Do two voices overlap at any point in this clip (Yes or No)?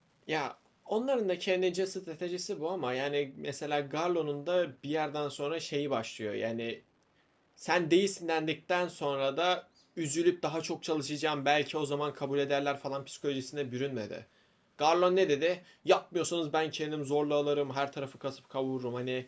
No